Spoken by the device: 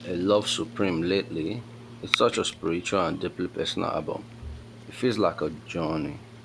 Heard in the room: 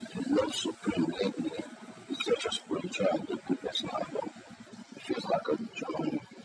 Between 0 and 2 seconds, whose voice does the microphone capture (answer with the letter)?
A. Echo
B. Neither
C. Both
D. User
A